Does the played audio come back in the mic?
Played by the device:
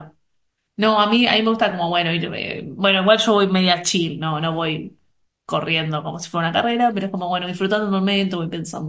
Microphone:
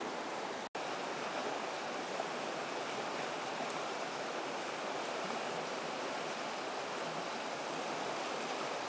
No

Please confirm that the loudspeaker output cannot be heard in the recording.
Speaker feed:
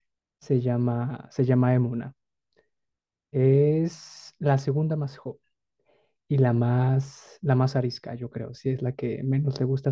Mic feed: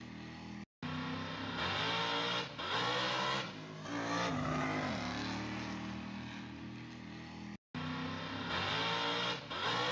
Yes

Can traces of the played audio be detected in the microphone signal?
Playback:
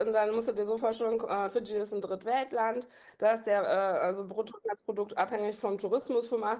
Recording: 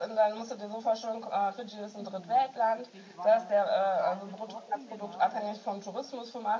Yes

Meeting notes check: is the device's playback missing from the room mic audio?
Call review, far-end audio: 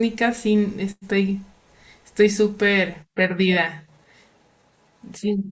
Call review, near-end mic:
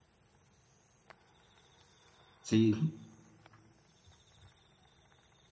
Yes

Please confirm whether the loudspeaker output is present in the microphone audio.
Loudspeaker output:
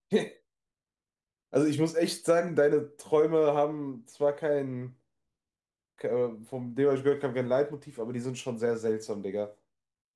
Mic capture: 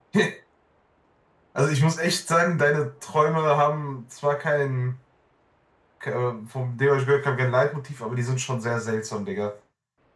Yes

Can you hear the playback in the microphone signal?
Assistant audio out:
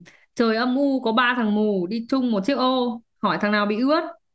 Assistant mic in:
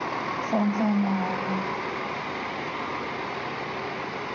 No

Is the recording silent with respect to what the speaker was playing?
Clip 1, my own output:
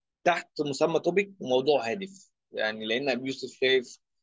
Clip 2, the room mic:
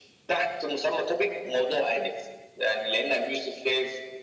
No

